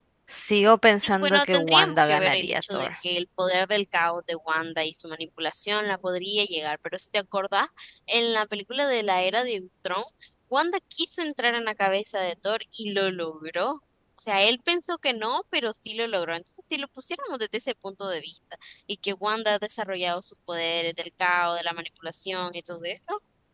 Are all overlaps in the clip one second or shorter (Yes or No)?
No